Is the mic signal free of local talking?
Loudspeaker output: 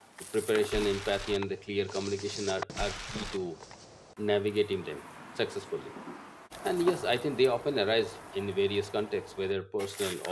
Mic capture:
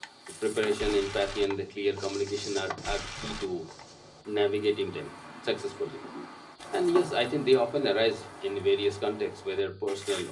Yes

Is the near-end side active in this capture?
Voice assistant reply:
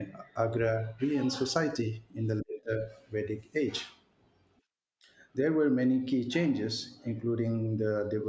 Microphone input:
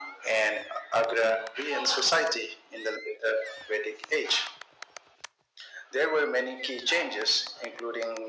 No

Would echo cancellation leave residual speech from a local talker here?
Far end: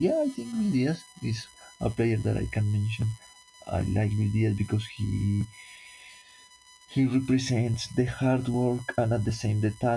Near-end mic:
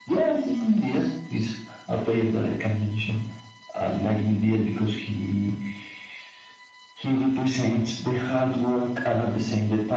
No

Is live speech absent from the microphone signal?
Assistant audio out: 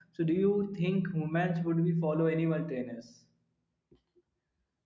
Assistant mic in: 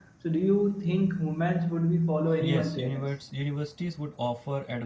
No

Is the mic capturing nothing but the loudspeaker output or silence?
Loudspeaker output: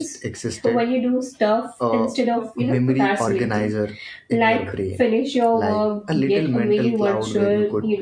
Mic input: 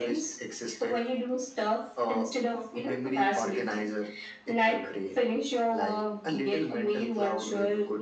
Yes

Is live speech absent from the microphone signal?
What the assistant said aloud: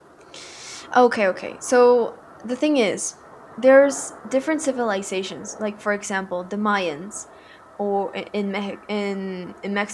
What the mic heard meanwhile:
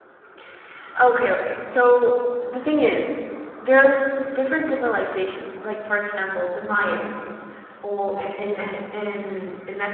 Yes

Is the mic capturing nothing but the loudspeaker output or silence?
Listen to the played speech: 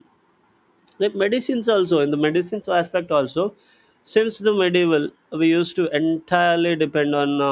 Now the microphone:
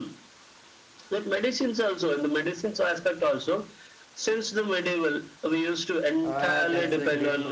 No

